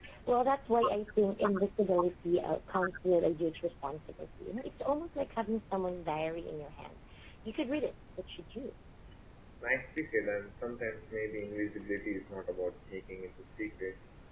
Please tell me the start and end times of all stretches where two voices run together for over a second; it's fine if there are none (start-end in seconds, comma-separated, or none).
none